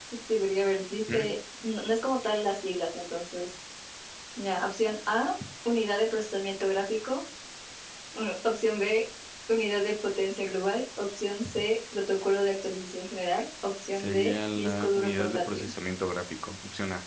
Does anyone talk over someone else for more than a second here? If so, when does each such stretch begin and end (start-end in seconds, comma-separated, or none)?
13.9-15.7